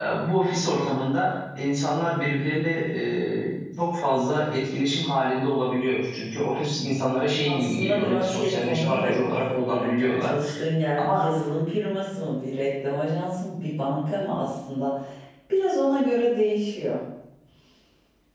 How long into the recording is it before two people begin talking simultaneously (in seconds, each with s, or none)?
7.5 s